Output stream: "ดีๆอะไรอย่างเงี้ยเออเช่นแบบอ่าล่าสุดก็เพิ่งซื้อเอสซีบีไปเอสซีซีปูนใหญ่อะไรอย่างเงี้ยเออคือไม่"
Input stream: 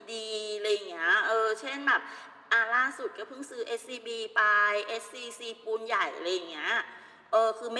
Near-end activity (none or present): none